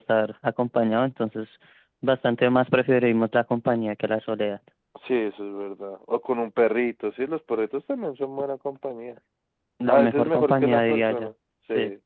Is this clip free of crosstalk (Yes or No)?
No